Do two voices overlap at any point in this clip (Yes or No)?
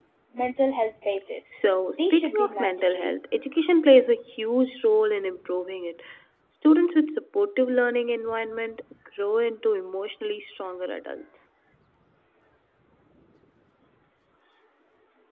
Yes